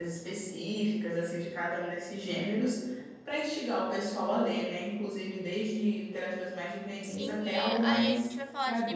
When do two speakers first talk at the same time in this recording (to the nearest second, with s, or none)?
7 s